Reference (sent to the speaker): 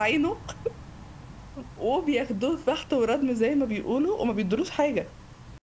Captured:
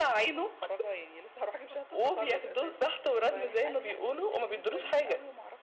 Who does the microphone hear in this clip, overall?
both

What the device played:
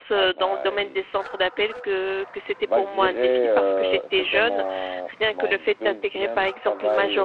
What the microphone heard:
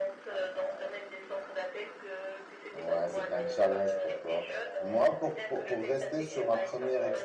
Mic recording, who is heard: both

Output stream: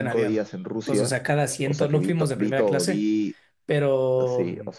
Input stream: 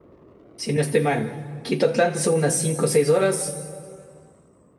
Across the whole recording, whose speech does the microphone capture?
user only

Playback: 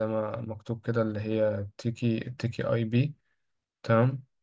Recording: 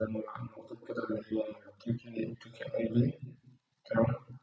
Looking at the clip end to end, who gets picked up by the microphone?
echo only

